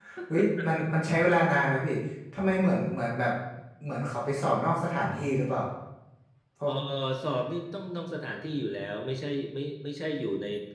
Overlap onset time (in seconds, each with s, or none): none